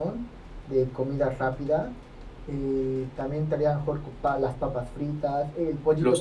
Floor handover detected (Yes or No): No